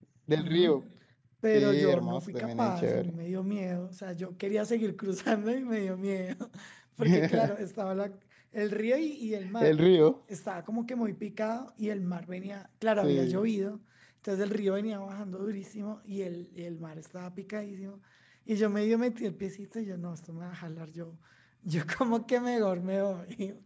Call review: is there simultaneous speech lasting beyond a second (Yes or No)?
Yes